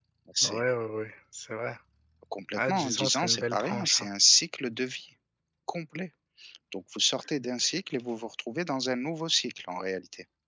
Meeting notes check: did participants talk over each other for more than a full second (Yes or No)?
Yes